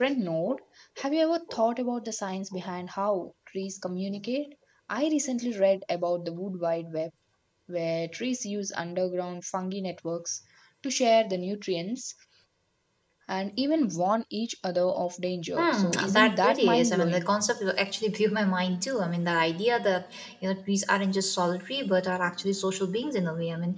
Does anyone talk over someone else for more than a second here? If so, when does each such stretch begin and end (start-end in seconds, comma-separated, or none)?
15.6-17.3